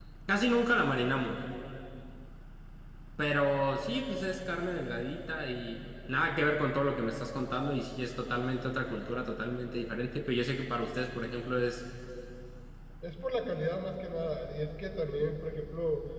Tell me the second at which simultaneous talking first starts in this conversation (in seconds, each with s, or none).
none